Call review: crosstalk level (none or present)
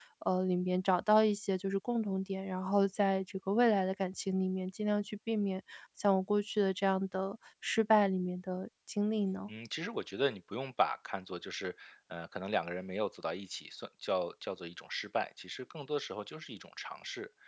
none